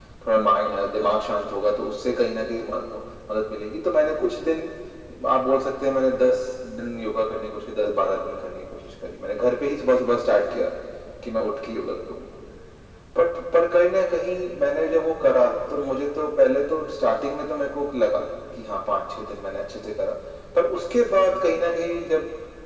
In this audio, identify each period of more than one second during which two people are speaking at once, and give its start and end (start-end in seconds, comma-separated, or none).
none